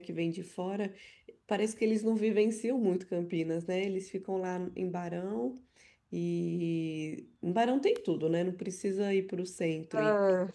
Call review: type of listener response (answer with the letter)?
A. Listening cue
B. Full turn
A